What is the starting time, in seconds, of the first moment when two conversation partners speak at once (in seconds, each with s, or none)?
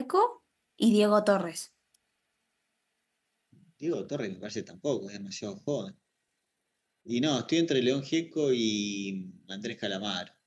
none